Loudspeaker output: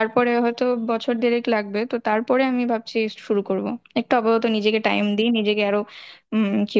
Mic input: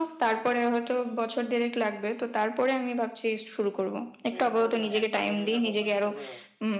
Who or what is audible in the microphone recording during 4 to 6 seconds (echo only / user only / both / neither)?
both